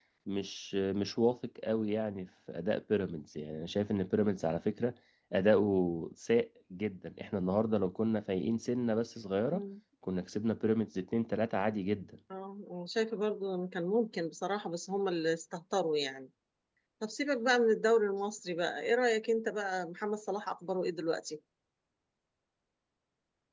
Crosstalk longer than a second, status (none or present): none